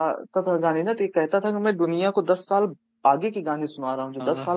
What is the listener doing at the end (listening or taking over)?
listening